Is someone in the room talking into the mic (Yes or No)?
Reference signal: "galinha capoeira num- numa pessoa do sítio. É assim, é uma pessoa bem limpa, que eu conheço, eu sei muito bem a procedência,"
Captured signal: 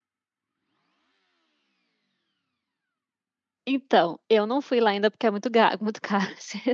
Yes